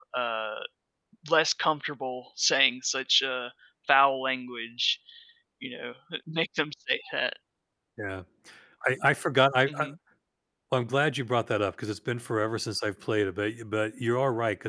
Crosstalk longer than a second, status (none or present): none